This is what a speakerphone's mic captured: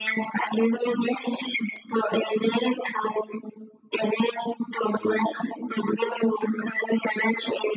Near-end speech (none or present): none